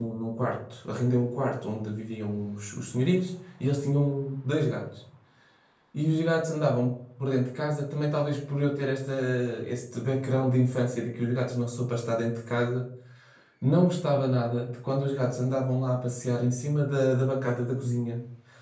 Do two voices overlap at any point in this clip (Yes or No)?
No